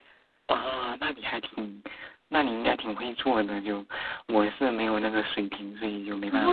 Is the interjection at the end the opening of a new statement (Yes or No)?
Yes